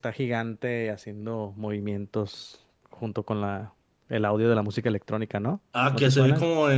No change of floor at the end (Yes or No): No